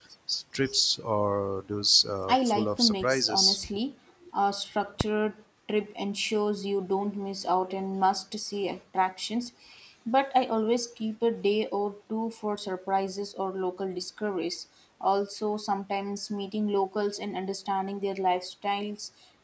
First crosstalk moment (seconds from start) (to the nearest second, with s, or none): 2 s